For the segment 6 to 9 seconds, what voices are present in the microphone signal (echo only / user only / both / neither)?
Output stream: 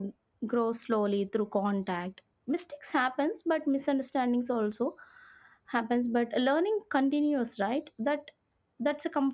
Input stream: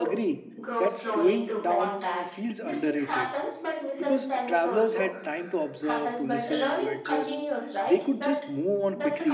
both